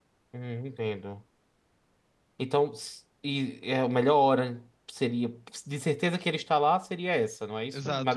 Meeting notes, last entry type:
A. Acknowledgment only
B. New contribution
B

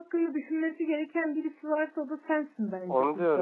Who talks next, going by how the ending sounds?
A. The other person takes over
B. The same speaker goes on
A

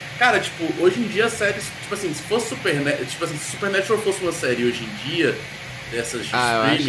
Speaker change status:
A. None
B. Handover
B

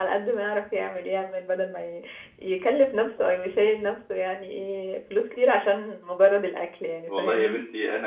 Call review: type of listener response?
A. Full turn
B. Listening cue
A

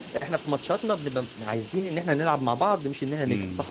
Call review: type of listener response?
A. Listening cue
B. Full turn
B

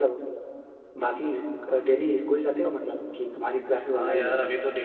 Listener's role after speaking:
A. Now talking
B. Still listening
A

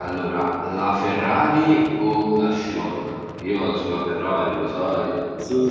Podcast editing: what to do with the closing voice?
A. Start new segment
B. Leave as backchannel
A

